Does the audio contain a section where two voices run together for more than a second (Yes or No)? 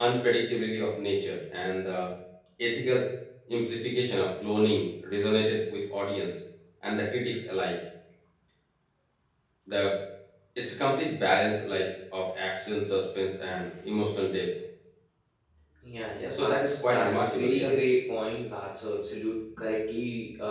Yes